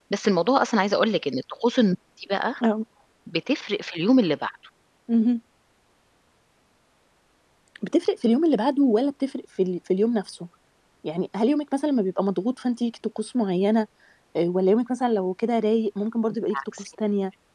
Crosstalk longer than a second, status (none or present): none